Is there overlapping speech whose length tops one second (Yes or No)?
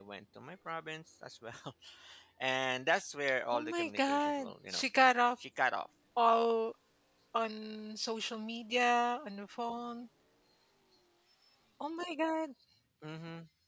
Yes